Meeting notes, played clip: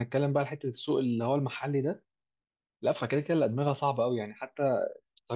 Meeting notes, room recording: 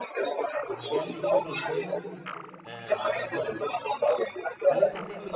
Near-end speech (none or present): present